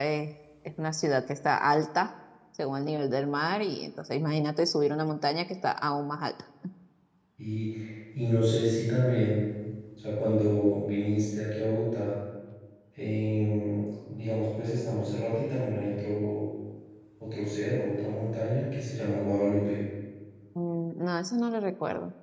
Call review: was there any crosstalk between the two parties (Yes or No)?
No